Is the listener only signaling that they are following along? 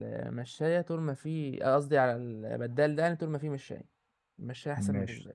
No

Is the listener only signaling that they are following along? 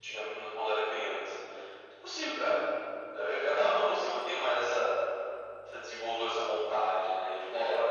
Yes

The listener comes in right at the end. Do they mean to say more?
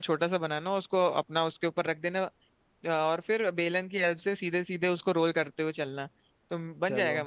No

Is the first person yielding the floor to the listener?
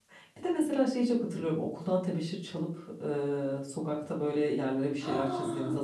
Yes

